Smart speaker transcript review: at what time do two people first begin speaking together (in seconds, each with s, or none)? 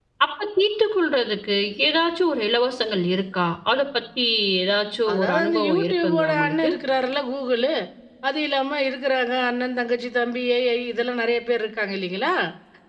5.1 s